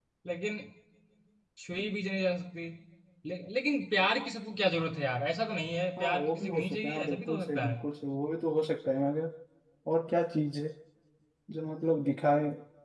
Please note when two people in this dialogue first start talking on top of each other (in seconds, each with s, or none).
6.0 s